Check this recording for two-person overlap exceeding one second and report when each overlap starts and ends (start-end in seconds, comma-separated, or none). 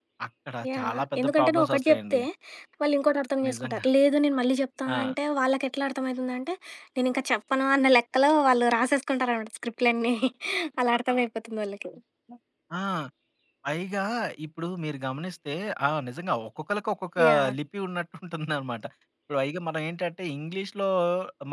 0.7-2.2